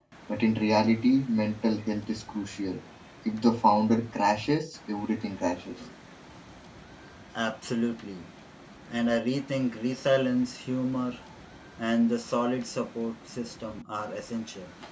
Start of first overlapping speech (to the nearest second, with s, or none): none